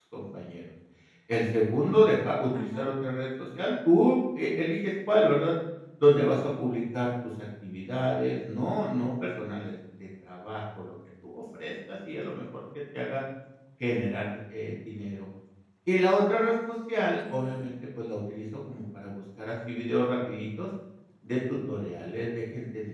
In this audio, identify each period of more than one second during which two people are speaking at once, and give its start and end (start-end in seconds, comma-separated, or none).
16.4-17.7